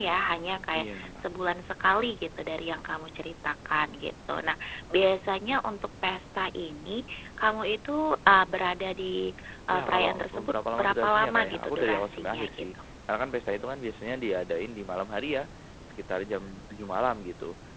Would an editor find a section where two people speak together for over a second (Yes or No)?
Yes